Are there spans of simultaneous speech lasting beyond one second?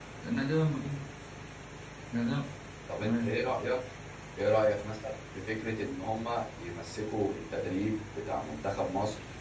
No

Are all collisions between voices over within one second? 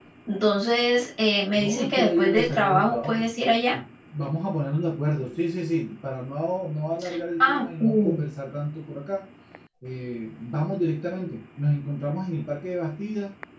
No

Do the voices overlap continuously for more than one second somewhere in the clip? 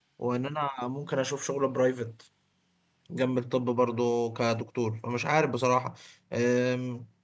No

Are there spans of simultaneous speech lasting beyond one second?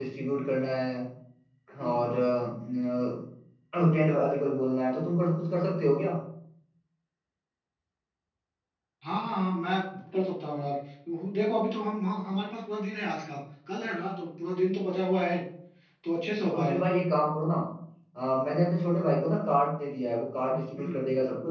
No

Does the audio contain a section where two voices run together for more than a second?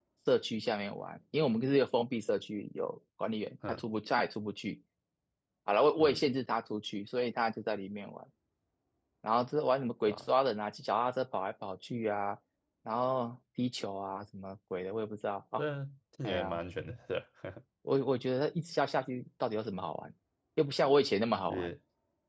No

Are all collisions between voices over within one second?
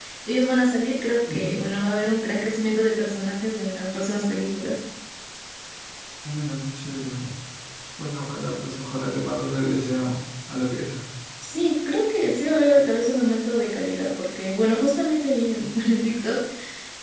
Yes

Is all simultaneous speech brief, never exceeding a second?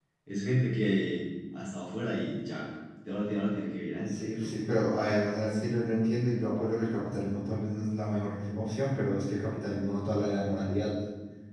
Yes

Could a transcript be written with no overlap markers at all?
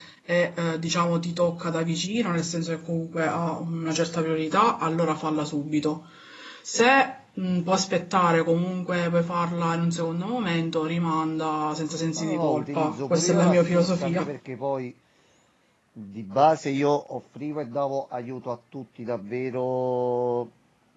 No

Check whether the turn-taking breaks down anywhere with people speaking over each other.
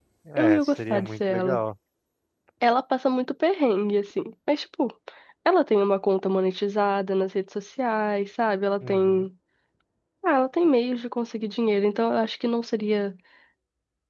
Yes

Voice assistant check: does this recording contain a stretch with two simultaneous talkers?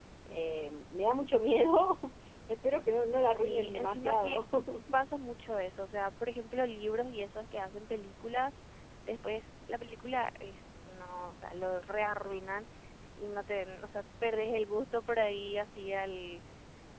Yes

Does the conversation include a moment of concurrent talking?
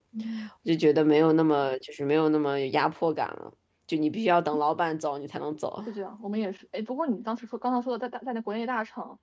No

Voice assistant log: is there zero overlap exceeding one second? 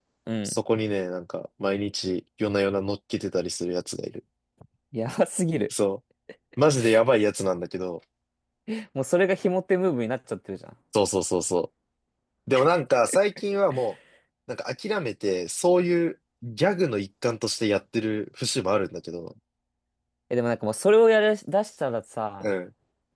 Yes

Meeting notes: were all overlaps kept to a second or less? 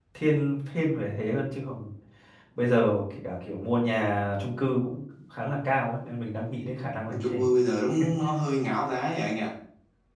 Yes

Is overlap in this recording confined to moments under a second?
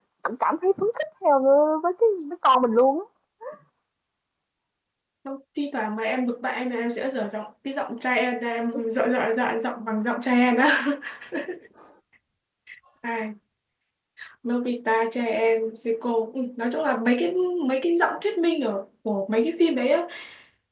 Yes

